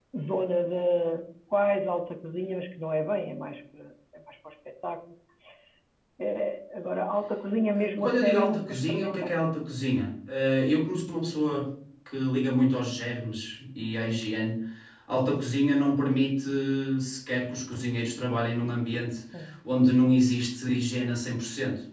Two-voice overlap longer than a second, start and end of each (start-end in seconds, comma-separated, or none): 8.0-9.3